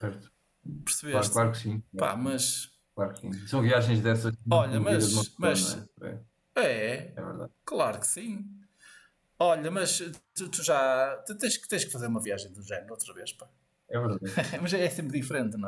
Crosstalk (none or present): present